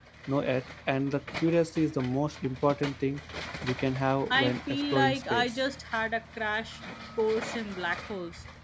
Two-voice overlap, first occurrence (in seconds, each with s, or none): 4.3 s